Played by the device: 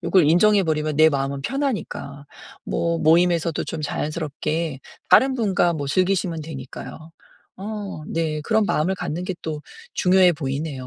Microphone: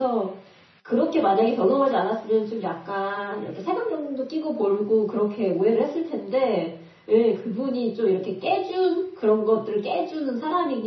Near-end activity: present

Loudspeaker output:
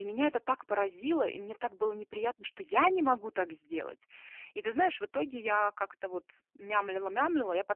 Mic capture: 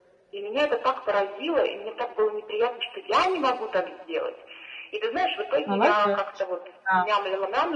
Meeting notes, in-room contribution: present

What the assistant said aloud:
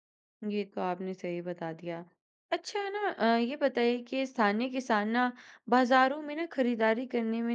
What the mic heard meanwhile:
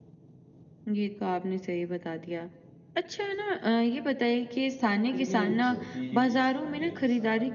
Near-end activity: present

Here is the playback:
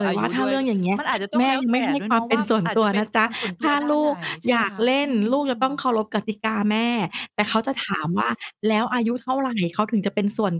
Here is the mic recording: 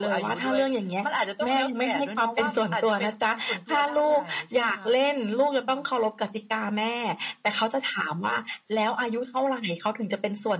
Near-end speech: none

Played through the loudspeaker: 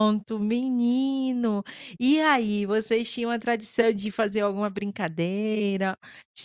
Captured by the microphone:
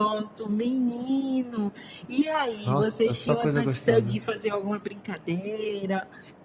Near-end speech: present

